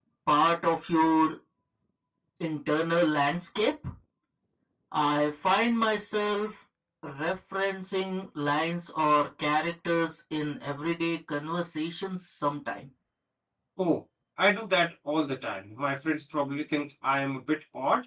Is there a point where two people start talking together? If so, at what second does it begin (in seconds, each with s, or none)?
none